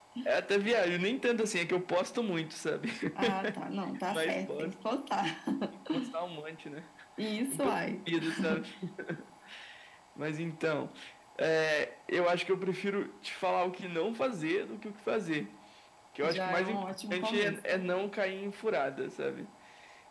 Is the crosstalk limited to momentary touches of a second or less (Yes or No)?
No